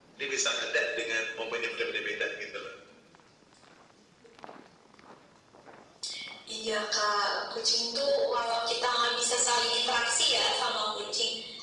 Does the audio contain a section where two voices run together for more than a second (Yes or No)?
No